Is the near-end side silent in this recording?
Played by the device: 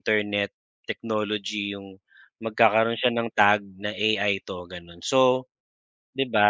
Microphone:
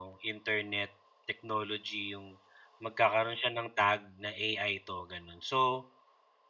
Yes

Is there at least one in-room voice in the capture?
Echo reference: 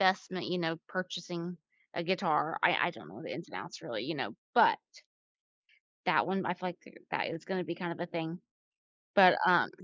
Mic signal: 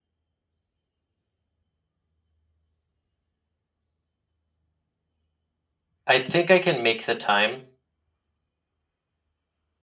Yes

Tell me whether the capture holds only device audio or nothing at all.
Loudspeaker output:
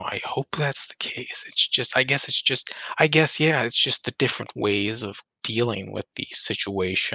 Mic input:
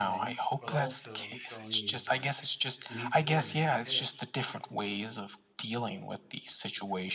No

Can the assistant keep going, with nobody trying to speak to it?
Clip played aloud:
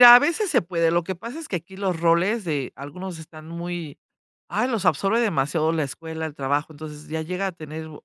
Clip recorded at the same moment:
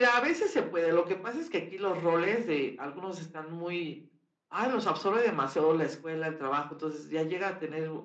Yes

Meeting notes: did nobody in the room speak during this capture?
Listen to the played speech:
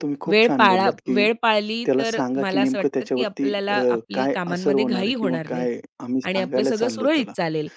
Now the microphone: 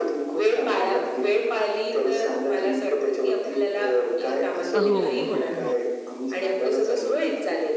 No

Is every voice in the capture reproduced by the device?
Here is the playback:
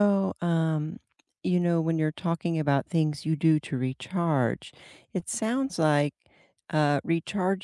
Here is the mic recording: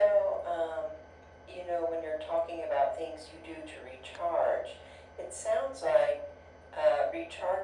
Yes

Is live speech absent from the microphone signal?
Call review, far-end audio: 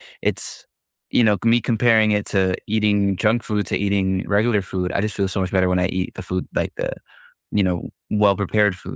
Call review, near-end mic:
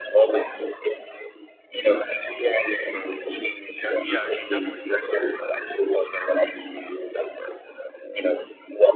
No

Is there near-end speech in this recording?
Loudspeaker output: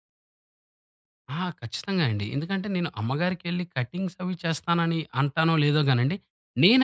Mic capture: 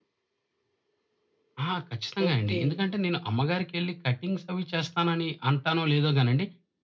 Yes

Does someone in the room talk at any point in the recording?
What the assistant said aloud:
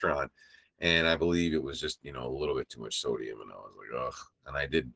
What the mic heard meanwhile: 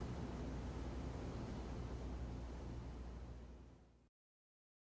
No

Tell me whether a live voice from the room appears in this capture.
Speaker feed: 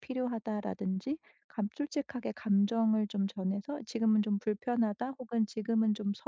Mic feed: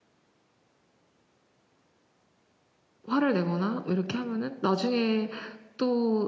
Yes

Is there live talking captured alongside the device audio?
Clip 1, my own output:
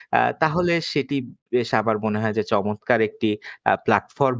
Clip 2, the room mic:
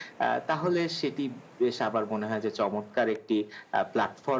No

